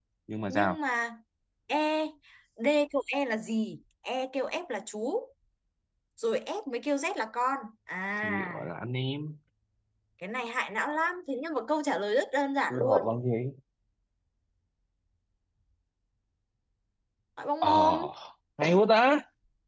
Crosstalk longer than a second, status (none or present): none